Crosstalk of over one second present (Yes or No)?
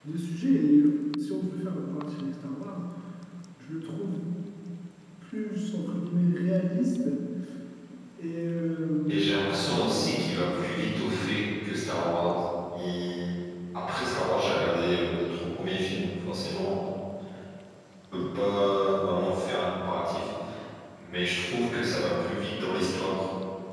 Yes